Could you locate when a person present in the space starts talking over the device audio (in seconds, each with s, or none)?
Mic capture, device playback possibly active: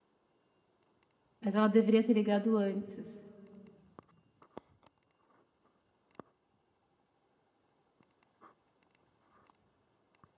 1.4 s